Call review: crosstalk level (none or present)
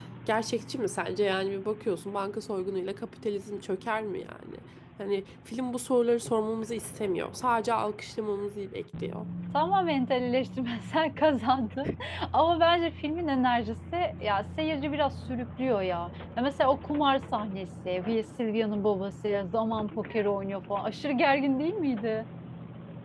none